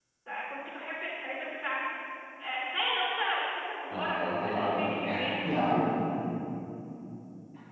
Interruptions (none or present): present